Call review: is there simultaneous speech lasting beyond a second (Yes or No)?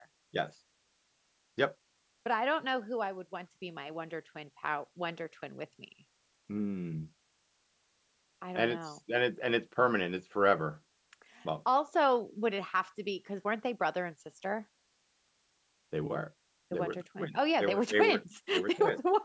Yes